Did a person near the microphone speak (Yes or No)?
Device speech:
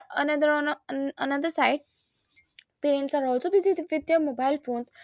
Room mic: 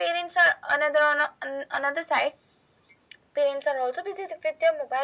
No